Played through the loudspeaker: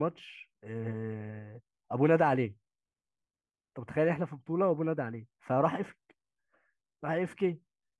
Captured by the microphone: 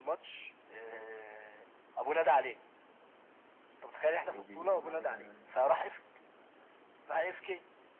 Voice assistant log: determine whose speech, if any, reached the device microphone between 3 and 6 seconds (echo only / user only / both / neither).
both